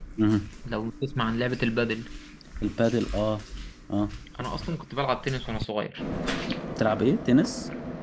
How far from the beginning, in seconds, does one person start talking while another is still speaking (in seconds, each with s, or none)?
none